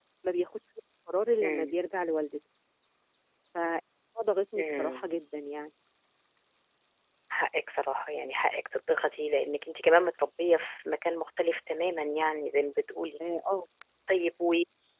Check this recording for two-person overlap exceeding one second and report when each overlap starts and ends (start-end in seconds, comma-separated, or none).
none